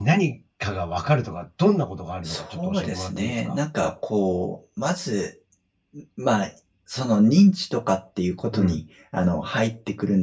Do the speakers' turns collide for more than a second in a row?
Yes, from 2.2 s

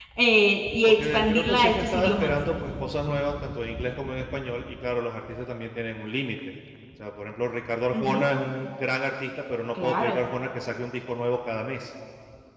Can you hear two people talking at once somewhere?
Yes, from 0.9 s

